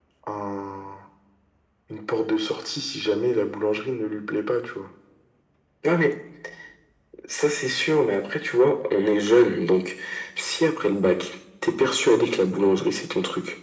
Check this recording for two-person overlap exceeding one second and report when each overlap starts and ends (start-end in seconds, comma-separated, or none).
none